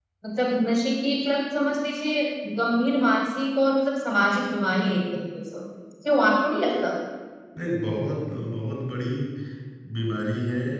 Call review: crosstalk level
none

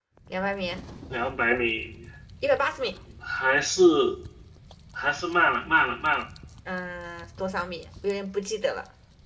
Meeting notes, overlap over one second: none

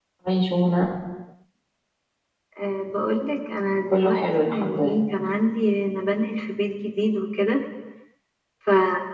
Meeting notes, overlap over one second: present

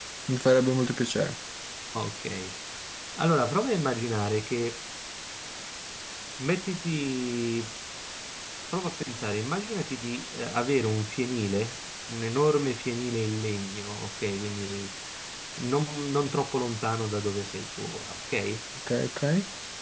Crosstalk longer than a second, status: none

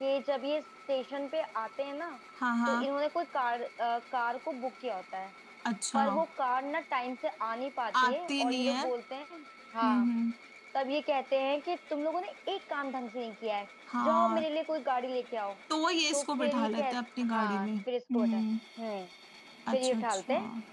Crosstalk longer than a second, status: present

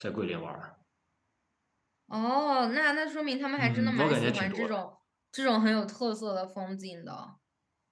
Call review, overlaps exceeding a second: present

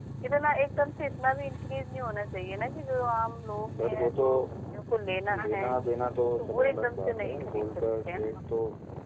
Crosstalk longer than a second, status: present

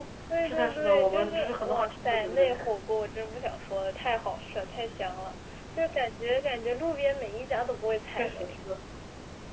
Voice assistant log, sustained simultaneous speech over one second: present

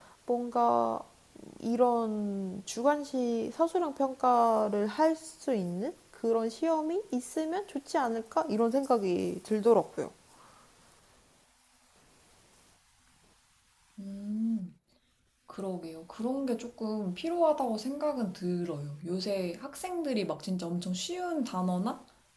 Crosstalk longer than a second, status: none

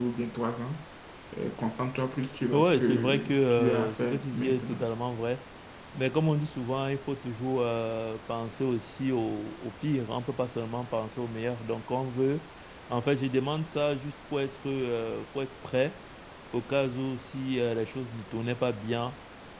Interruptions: present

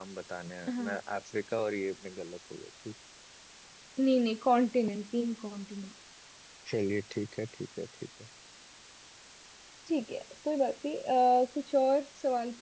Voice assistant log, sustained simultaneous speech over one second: none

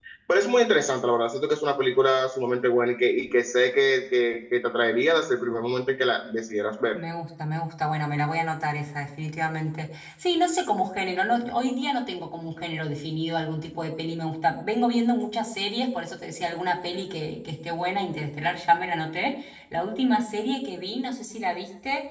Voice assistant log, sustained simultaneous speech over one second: none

